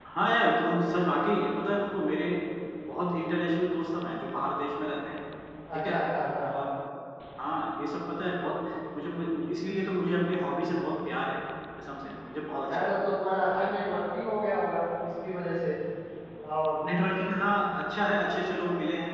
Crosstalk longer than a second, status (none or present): none